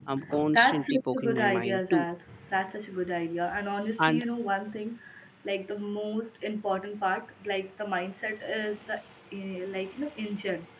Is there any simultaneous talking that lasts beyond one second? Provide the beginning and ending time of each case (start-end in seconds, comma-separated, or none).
0.5-2.0